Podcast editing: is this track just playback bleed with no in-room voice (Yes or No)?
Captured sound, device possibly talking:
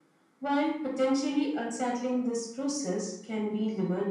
Yes